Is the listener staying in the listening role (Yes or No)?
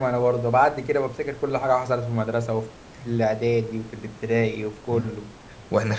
No